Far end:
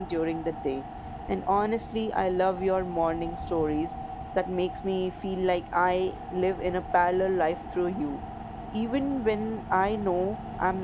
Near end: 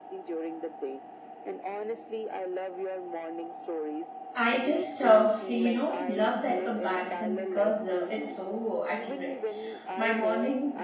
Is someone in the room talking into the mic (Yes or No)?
Yes